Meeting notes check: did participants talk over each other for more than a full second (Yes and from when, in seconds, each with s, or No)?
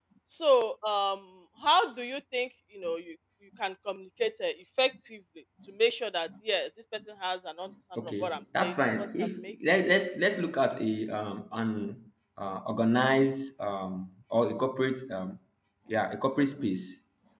Yes, from 8.0 s